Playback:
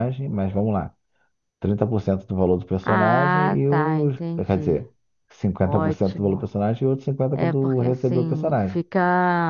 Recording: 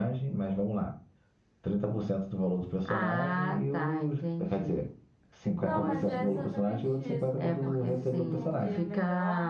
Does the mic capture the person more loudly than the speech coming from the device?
No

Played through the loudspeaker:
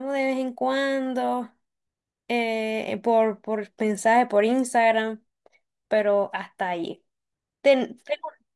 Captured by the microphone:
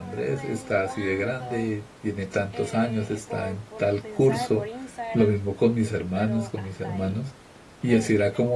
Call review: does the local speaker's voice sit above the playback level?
Yes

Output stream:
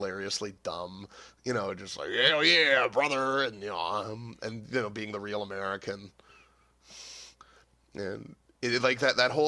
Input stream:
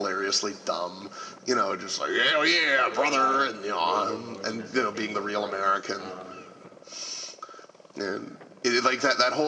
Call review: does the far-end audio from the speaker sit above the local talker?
Yes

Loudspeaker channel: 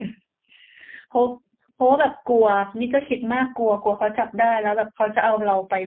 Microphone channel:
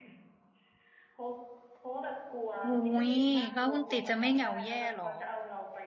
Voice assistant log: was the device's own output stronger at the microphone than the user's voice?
No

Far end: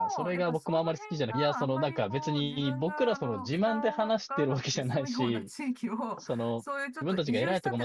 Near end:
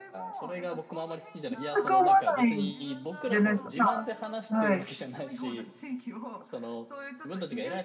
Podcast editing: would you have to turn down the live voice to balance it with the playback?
Yes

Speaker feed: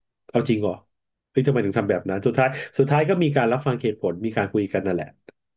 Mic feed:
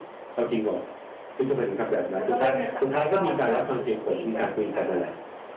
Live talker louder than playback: No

